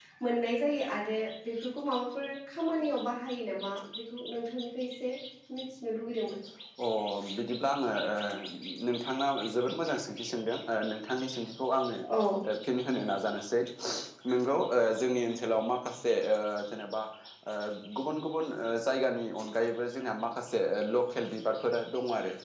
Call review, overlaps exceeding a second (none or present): none